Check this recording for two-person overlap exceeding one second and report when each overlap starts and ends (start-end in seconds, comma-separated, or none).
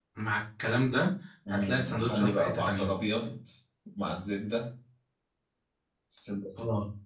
1.5-2.9